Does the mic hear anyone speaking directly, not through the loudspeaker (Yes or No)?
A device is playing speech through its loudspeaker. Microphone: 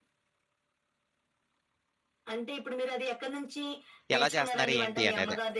Yes